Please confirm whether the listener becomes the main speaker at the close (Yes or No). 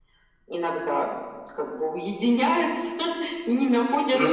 No